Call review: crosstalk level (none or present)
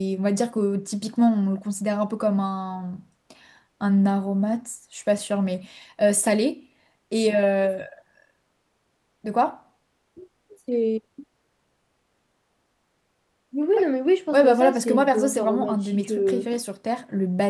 present